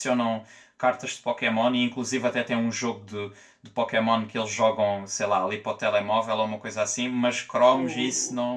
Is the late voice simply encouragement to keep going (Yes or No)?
Yes